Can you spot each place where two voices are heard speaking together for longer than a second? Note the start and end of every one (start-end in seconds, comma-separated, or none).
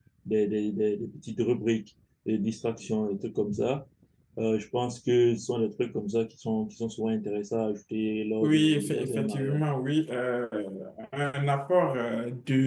8.4-9.6